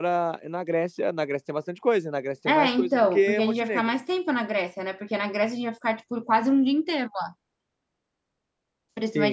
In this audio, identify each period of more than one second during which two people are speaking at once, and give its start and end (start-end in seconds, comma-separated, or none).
2.5-4.0